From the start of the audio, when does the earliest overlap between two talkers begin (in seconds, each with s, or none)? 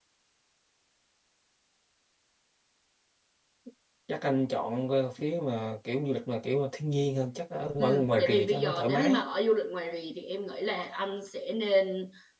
7.8 s